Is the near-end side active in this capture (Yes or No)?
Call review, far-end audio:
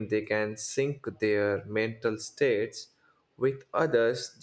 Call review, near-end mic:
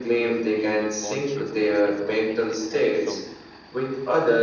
Yes